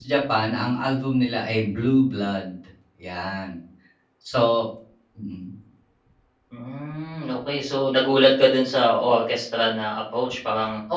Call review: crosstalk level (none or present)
none